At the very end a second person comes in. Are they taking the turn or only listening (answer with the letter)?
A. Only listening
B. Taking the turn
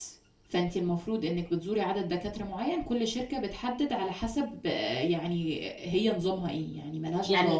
B